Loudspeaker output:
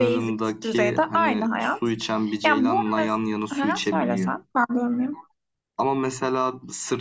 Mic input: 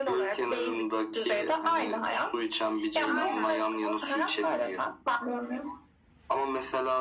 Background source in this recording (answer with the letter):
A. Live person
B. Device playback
A